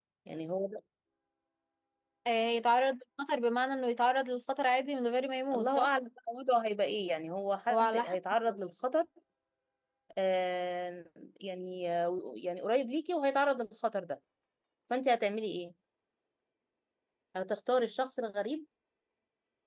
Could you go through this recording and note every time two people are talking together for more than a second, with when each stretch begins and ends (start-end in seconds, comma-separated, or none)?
none